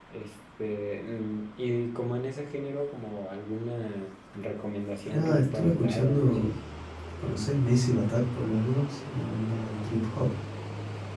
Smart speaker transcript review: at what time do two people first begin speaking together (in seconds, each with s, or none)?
5.1 s